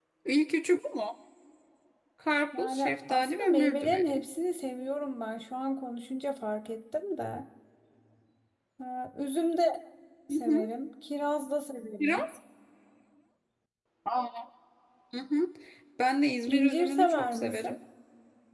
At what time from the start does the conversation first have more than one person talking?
2.5 s

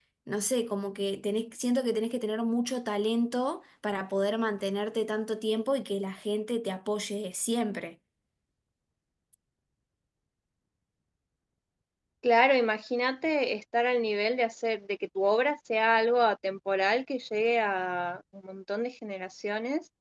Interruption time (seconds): none

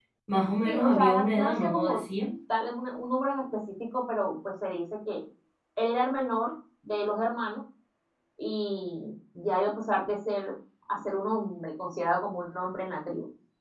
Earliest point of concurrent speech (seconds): 0.7 s

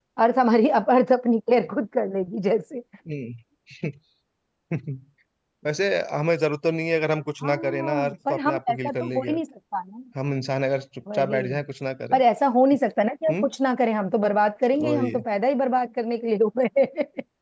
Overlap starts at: 7.4 s

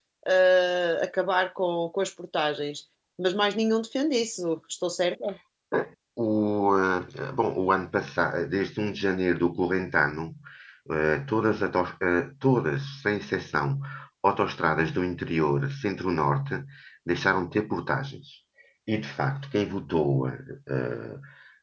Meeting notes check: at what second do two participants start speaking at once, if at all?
none

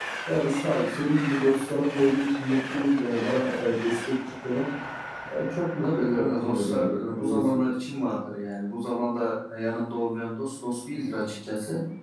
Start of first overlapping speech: 5.8 s

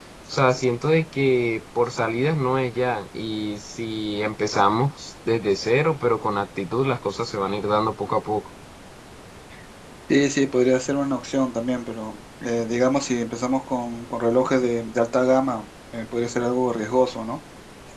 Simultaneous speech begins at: none

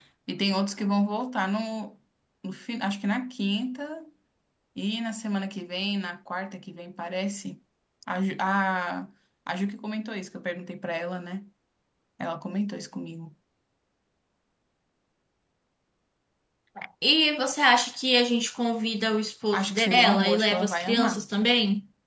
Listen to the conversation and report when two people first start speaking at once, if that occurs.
19.5 s

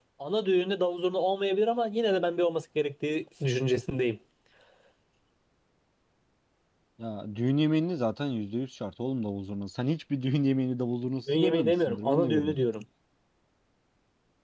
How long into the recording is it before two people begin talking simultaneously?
11.3 s

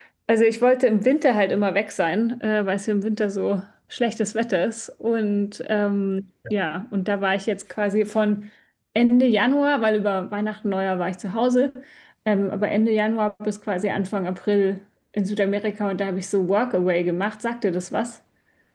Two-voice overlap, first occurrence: none

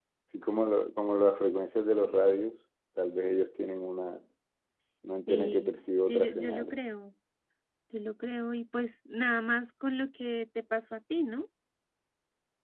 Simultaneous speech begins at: 5.2 s

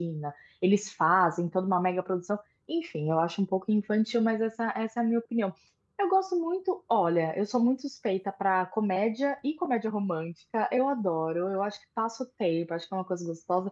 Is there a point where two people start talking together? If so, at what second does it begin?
none

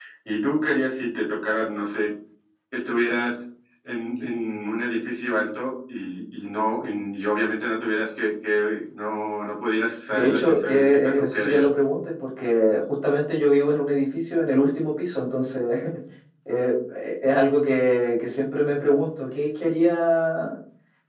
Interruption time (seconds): 10.1 s

